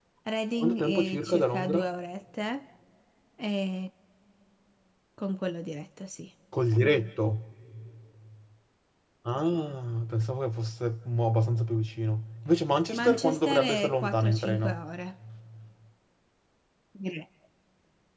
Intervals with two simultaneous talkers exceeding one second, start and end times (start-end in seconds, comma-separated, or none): 0.6-1.9, 12.9-14.8